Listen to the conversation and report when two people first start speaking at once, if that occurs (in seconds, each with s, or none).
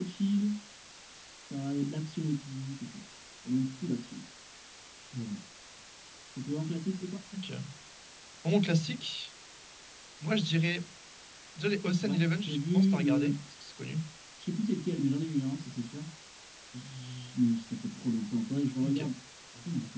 12.1 s